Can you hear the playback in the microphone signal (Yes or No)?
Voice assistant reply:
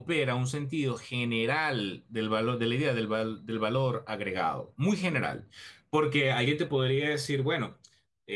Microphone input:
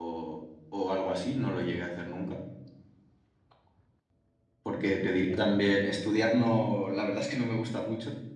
No